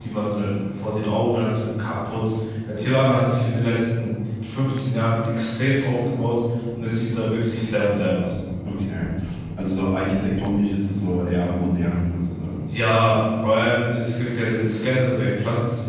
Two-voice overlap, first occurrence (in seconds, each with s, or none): none